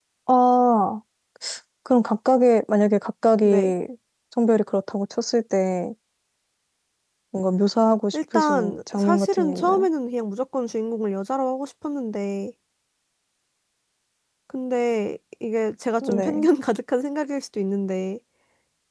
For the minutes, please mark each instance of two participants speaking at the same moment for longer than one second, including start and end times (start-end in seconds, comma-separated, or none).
8.1-9.9